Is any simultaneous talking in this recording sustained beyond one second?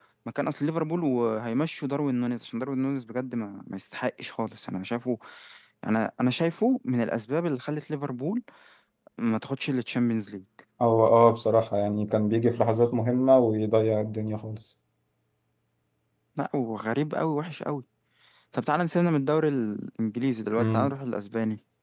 No

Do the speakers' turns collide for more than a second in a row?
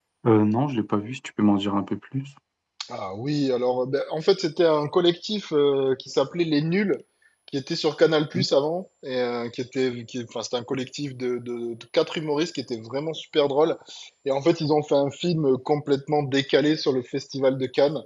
No

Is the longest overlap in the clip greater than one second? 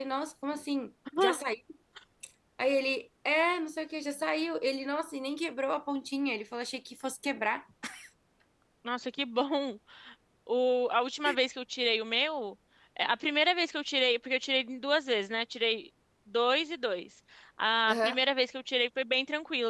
No

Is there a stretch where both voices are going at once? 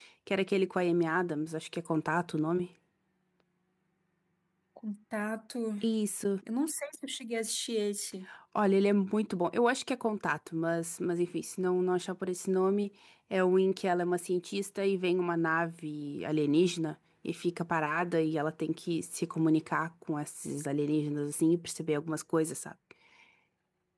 No

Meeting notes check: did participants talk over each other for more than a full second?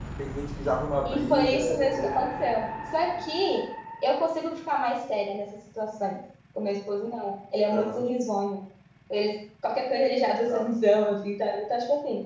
Yes, from 1.0 s

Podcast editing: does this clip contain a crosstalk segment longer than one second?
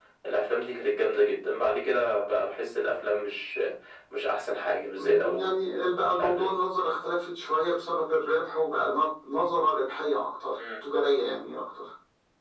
No

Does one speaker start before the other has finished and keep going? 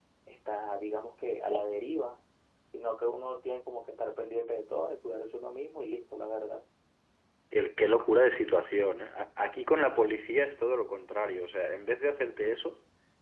No

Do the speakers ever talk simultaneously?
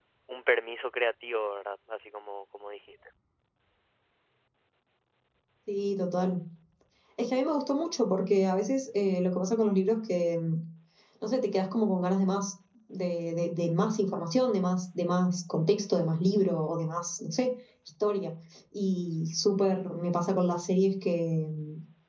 No

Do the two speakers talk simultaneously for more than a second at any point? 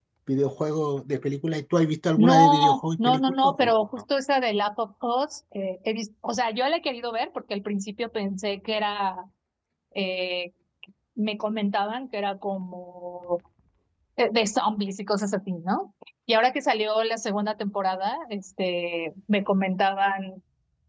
Yes, from 2.2 s

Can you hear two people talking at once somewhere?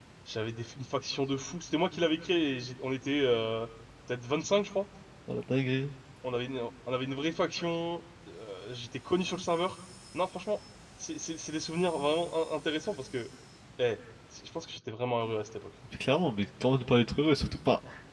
No

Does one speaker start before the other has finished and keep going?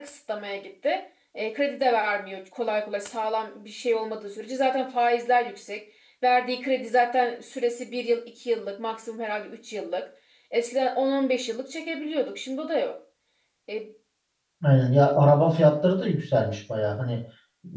No

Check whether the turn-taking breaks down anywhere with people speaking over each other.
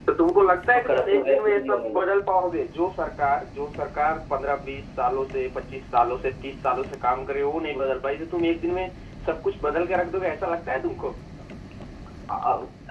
Yes, from 0.8 s

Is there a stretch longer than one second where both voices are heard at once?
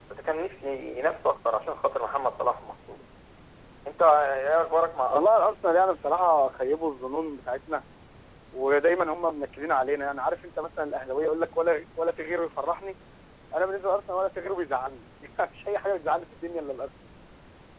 No

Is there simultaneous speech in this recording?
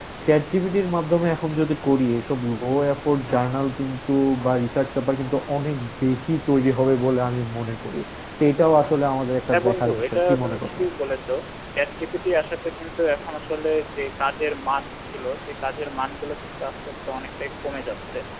Yes, from 9.5 s

